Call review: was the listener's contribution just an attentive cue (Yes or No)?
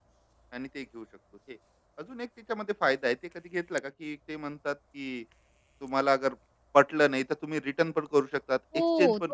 No